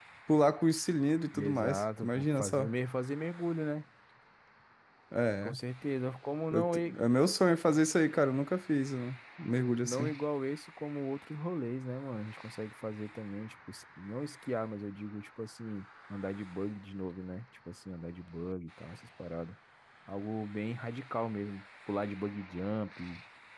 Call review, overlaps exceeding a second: present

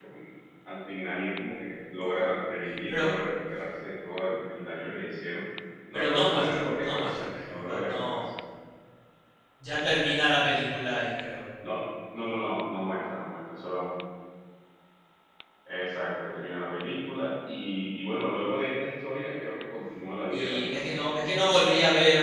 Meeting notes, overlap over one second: present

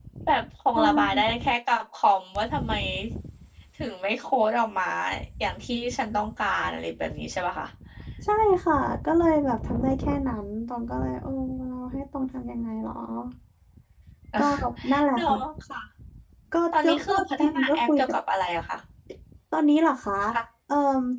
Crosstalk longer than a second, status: present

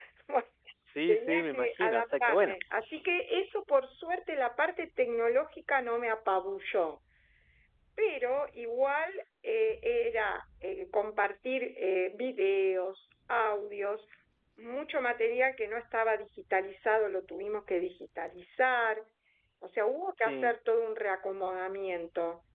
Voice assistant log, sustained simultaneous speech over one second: present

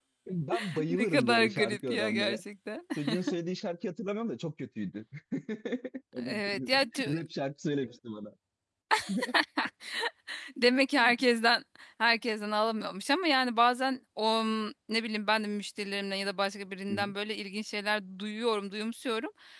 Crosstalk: present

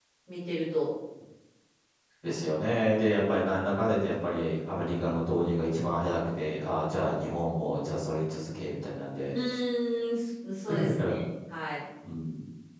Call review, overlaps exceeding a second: none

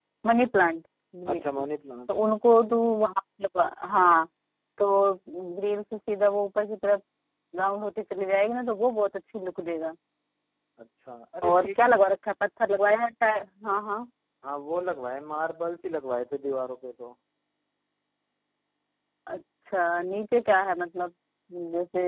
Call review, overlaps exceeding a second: none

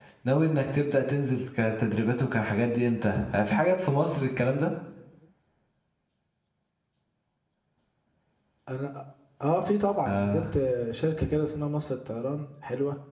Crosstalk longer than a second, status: none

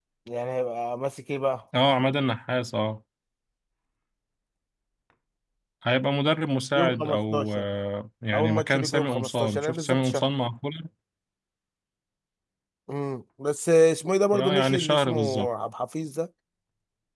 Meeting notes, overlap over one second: present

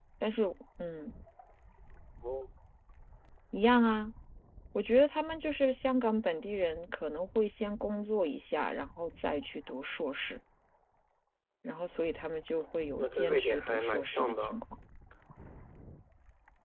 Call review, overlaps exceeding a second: present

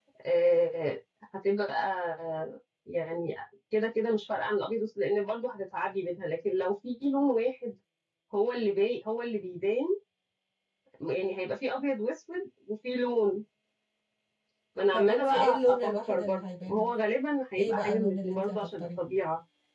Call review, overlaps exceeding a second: present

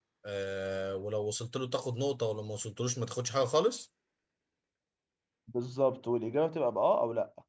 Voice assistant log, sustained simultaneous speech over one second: none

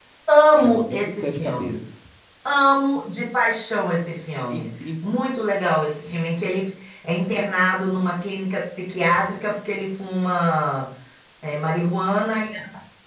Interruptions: present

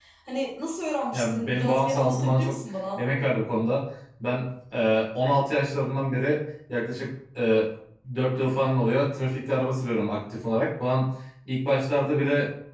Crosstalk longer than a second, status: present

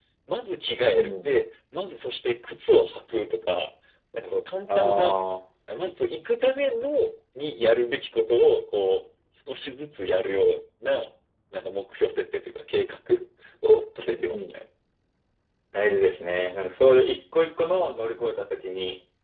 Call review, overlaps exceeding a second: none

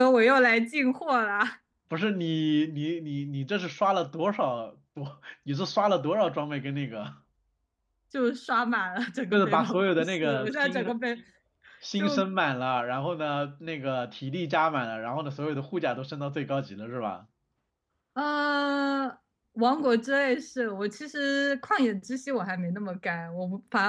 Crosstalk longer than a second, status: present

